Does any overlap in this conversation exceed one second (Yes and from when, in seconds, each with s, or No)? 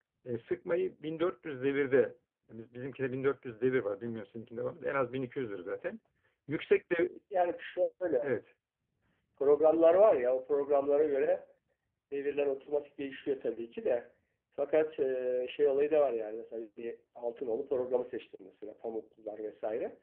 No